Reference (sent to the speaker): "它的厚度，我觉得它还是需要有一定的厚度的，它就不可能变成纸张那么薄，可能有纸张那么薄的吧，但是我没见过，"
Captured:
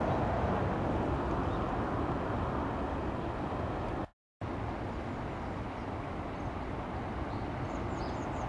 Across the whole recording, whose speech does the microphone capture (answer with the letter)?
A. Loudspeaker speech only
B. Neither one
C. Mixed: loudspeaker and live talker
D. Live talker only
B